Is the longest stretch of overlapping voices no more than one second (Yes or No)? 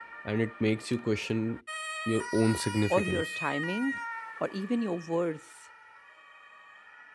Yes